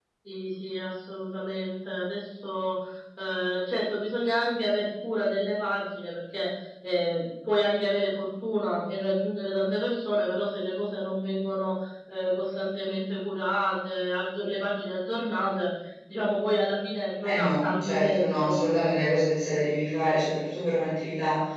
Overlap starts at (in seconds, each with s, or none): 17.2 s